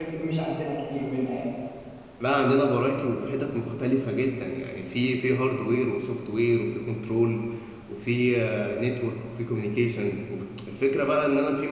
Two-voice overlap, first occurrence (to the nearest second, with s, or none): none